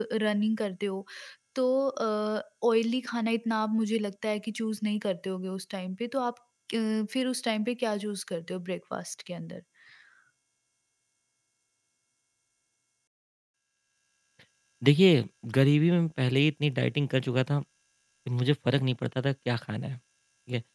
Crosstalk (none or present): none